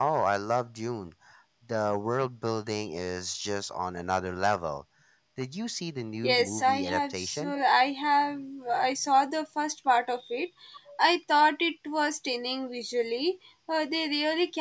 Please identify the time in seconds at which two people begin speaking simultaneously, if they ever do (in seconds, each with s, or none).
6.2 s